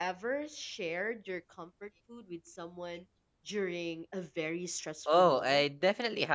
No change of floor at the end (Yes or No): No